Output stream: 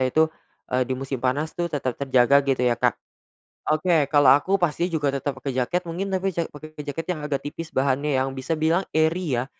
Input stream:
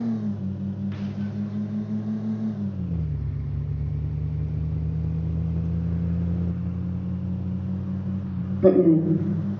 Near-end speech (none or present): present